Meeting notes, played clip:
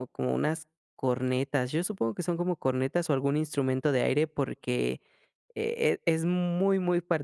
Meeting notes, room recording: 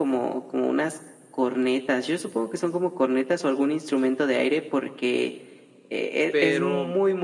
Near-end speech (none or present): present